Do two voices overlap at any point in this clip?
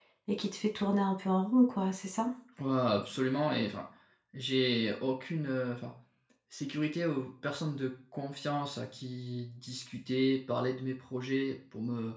No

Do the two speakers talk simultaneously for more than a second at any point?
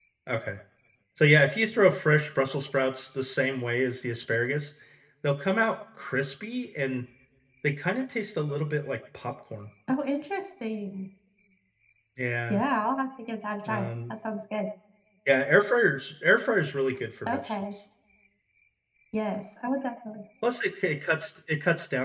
No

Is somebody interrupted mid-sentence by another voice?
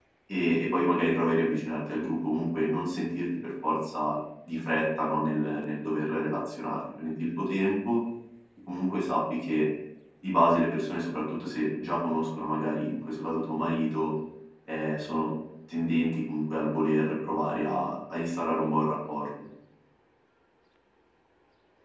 No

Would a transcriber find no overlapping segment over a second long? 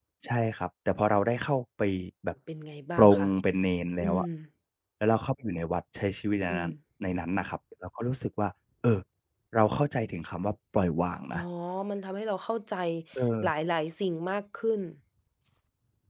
Yes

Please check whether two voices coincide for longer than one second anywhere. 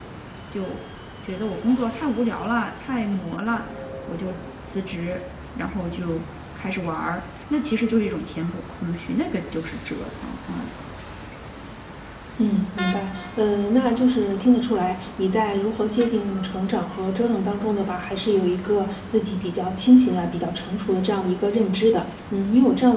No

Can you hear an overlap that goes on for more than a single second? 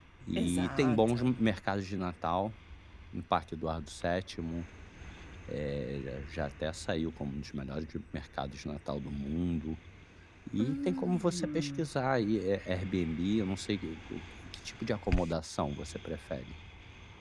Yes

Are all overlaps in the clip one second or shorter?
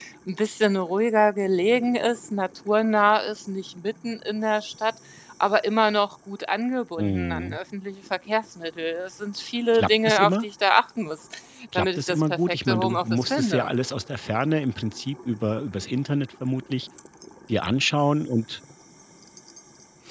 No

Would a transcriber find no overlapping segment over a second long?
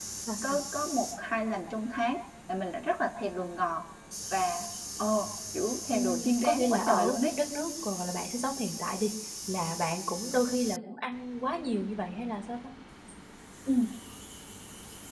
No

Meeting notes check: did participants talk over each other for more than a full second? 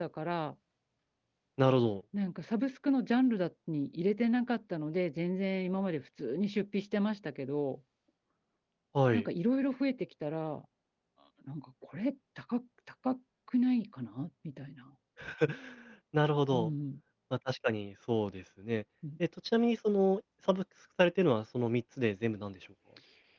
No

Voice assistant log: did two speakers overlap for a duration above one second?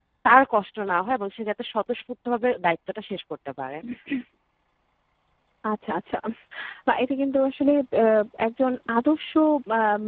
No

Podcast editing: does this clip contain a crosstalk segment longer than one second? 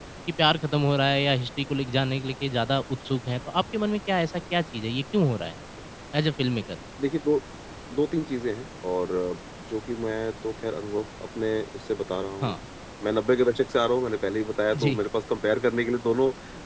No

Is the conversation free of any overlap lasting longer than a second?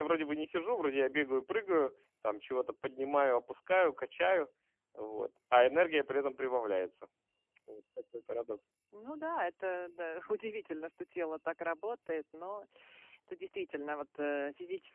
Yes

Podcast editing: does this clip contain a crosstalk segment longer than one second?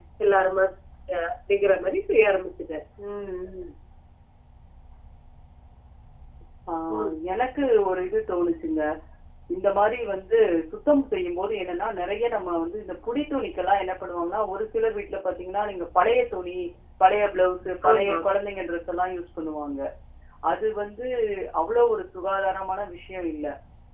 No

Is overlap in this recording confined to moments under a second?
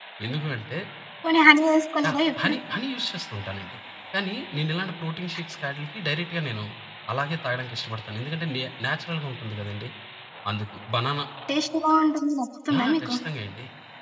Yes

